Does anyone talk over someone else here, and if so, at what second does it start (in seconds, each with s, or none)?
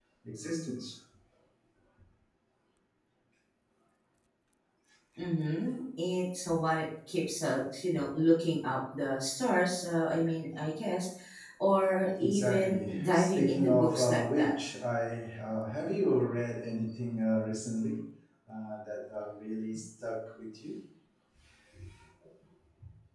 12.2 s